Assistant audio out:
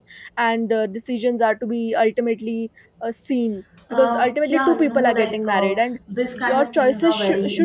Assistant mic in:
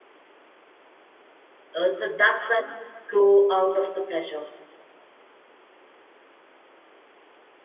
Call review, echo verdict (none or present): none